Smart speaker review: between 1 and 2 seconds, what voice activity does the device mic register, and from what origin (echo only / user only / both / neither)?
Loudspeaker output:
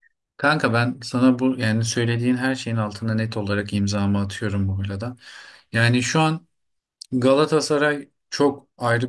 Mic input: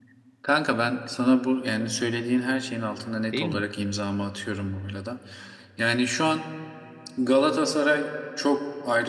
echo only